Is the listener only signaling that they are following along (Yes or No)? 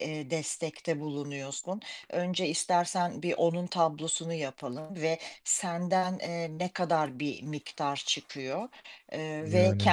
Yes